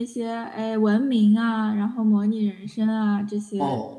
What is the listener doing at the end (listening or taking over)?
listening